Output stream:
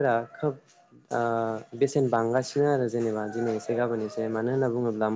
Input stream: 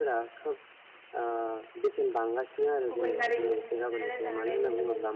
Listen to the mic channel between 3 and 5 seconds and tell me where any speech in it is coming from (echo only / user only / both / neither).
both